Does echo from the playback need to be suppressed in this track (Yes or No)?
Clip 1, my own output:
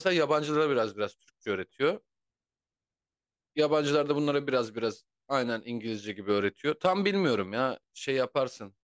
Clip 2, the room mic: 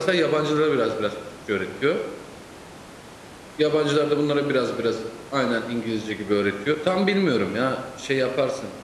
Yes